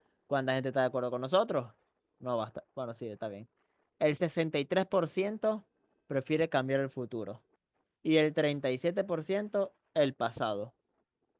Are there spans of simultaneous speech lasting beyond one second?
No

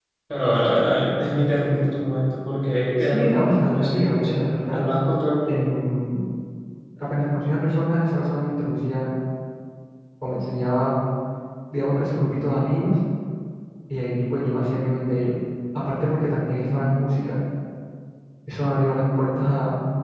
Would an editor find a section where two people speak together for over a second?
Yes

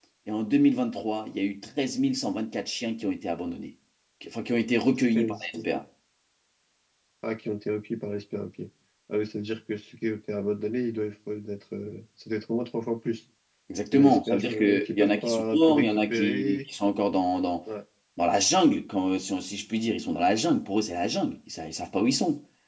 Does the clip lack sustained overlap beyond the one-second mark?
No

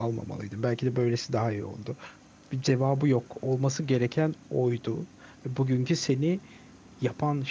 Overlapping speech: No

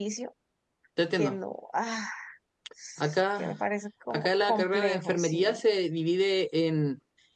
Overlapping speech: Yes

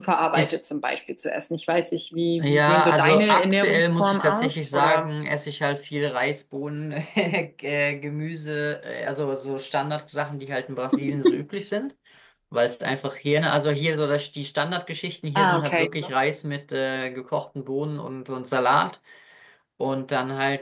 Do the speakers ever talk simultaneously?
Yes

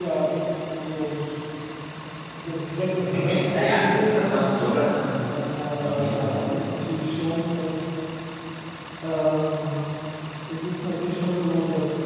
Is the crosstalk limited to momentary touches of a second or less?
No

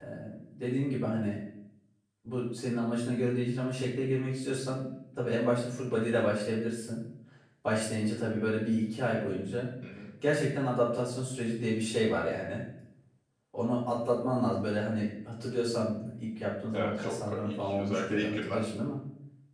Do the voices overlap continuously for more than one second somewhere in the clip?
Yes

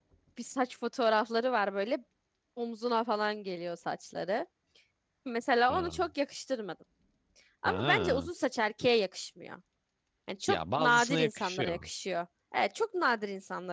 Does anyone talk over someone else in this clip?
Yes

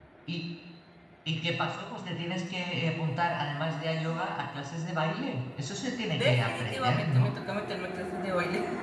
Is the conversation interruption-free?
No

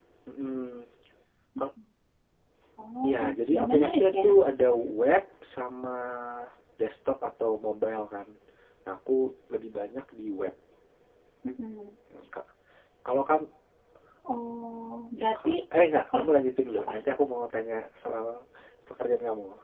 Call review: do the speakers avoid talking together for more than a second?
No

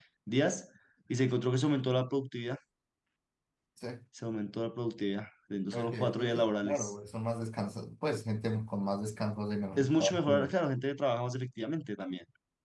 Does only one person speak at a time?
No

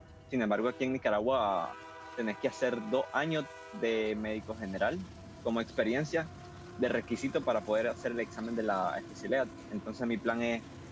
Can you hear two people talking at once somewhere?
No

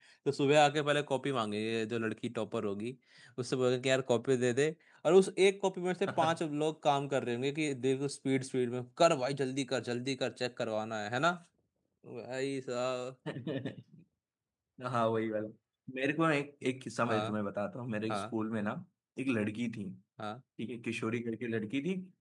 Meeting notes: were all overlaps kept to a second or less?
Yes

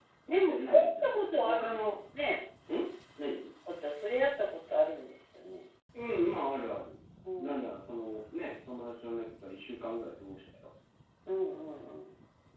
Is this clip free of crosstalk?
No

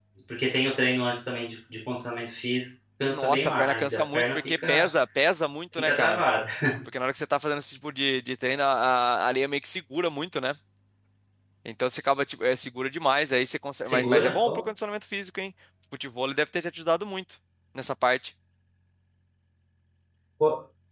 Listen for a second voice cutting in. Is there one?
Yes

